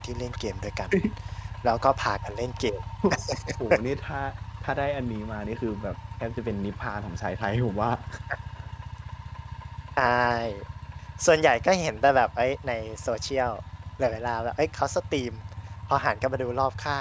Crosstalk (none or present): none